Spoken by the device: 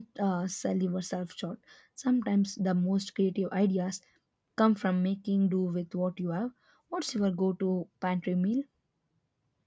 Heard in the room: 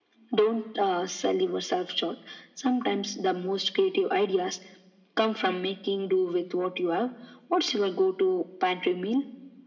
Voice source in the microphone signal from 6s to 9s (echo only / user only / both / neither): echo only